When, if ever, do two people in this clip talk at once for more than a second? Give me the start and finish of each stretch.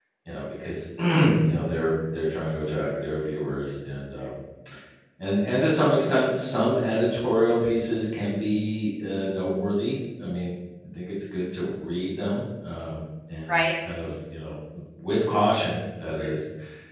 2.7-4.3

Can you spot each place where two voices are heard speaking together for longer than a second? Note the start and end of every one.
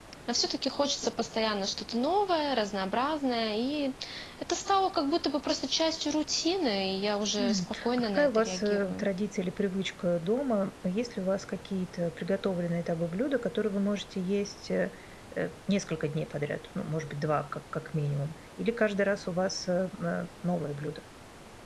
7.4-9.1

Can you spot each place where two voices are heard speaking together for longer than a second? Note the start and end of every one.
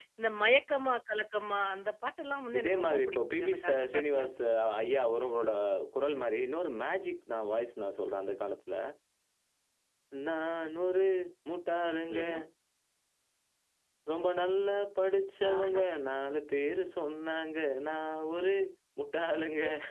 2.6-4.2

